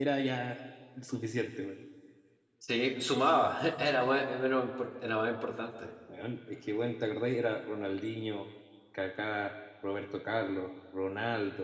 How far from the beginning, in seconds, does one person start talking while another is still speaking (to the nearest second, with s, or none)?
none